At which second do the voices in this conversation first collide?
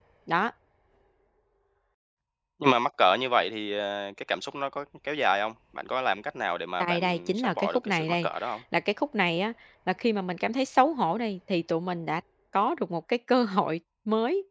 6.8 s

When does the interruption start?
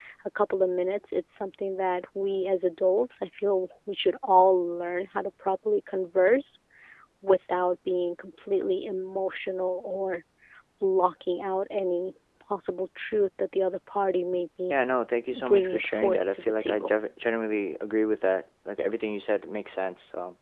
15.3 s

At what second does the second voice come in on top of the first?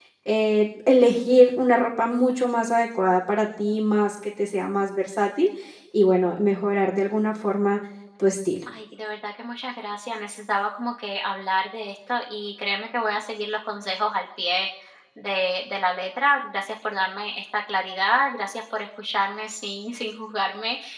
none

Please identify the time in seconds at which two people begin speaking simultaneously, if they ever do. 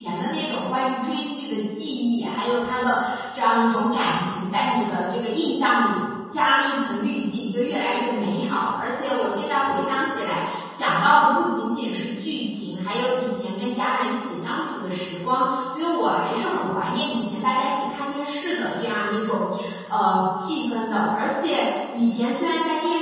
none

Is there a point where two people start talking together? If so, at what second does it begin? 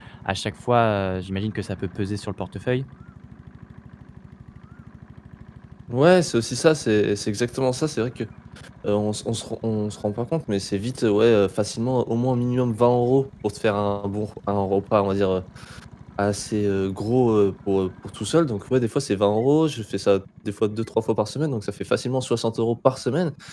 none

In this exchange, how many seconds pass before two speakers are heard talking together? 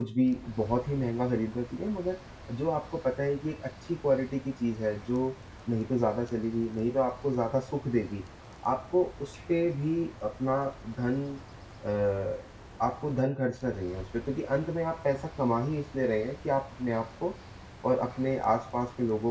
none

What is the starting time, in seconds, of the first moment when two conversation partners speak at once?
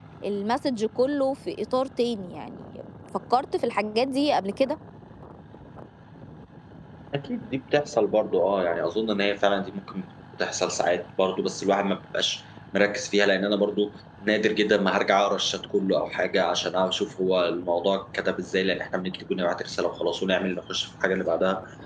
none

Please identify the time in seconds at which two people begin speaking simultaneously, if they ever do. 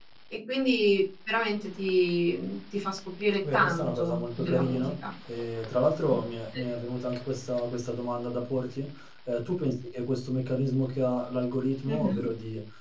3.5 s

